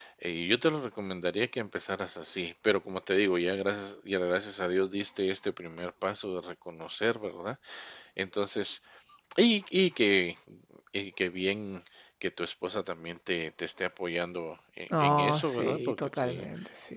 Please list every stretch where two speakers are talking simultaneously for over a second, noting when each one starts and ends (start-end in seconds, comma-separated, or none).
14.9-16.5